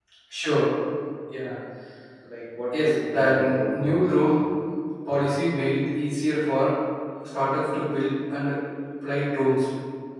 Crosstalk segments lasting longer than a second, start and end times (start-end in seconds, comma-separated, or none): 2.8-4.2